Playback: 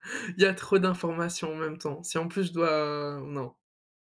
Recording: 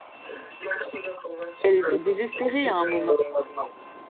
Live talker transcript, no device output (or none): elle était désespérée à un moment.